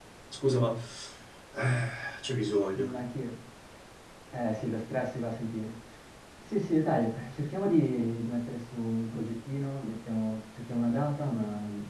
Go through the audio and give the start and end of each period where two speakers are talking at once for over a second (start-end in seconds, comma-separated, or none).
none